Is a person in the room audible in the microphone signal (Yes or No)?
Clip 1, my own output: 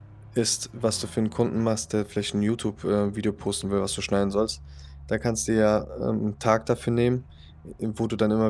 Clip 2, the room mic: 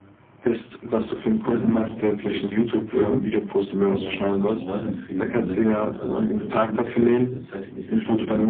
Yes